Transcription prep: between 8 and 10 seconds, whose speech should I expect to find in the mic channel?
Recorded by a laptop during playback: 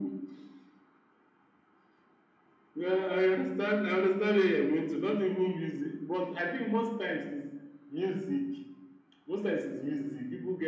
echo only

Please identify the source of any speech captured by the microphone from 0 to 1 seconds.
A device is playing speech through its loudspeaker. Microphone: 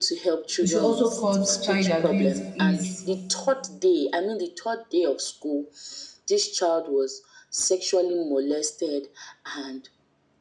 both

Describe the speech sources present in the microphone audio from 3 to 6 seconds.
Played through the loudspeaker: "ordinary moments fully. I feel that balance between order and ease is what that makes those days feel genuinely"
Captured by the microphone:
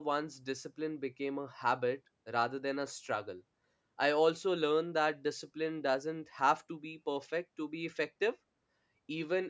user only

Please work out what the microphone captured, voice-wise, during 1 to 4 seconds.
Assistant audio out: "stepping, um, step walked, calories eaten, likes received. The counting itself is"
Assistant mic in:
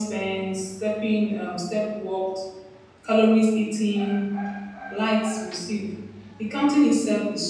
echo only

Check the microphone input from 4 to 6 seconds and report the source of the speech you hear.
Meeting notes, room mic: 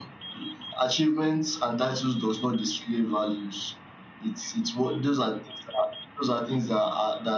echo only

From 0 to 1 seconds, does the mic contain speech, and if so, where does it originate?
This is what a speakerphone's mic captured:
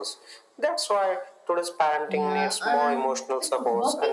echo only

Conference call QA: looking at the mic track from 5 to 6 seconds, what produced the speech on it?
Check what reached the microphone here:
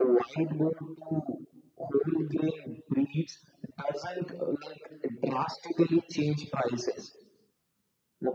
echo only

